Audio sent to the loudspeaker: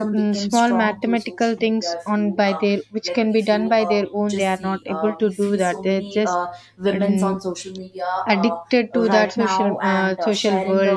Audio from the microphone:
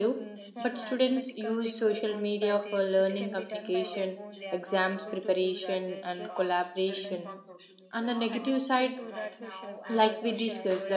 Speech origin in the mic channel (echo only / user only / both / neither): both